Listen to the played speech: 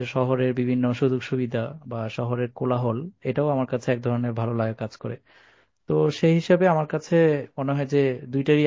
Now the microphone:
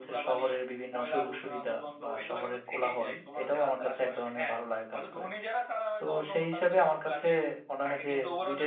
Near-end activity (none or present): present